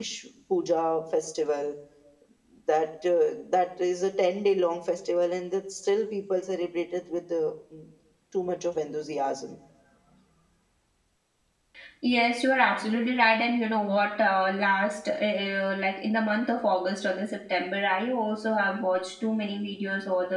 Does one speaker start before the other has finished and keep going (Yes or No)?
No